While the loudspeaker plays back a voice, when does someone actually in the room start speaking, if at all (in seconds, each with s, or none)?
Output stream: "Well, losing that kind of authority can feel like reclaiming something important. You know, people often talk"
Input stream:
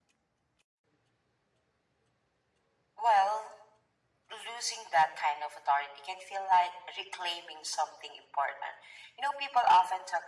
none